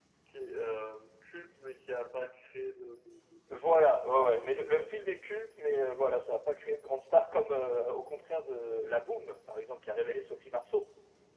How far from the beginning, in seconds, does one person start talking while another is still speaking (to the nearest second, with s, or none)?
4 s